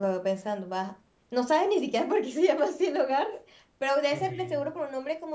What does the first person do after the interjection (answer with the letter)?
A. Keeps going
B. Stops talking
A